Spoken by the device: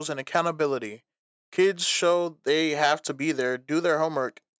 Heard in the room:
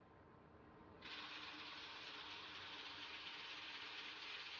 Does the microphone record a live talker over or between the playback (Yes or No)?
No